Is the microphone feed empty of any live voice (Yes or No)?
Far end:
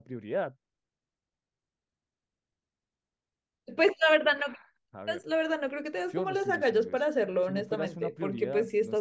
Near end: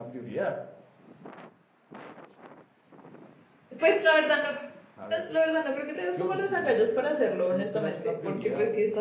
Yes